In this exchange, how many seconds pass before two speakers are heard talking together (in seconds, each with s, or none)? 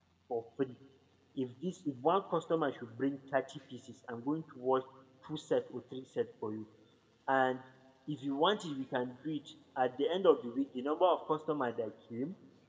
none